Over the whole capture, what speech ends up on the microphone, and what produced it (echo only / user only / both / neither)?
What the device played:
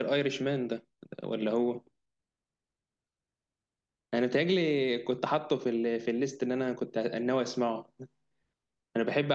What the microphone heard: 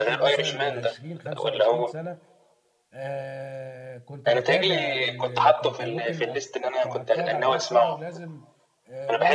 both